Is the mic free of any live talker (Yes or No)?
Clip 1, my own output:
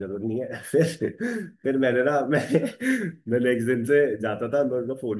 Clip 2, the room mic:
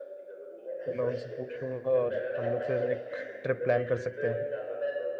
No